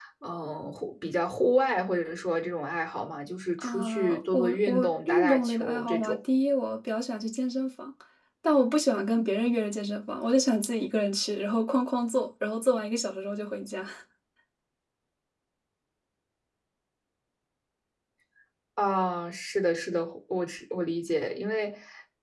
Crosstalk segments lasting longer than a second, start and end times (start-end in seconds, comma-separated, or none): 3.6-6.2